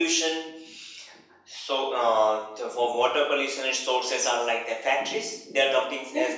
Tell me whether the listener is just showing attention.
Yes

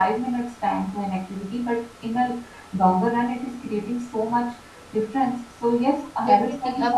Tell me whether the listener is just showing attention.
No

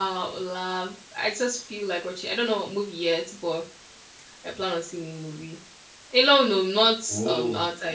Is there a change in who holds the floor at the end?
No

